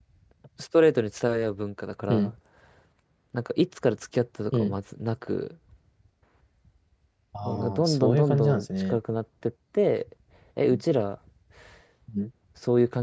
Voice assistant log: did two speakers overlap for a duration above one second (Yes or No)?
Yes